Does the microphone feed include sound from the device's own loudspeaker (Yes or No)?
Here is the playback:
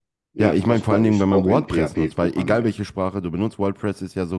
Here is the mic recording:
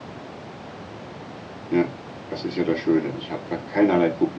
No